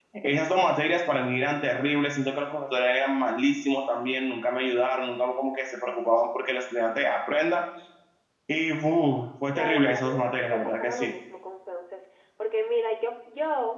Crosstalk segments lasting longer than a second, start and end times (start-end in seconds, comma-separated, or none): 9.6-11.1